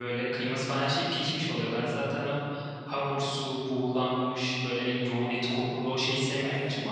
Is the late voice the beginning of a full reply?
Yes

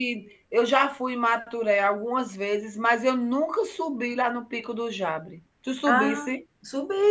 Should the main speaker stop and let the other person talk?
Yes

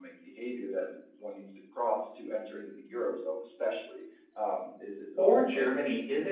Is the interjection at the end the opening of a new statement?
Yes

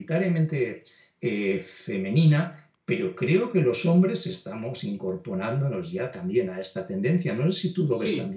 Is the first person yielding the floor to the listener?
Yes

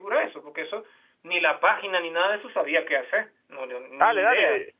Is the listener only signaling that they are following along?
No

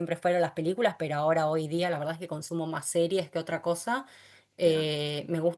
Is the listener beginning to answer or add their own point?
No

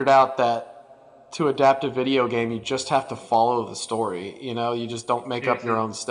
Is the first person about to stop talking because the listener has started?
No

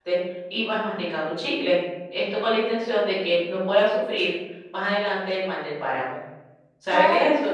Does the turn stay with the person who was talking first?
No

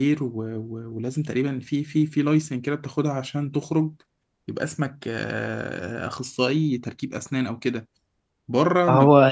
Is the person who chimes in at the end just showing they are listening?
Yes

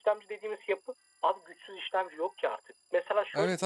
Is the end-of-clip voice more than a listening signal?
Yes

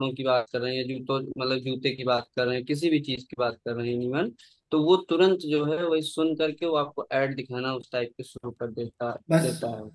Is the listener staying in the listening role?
No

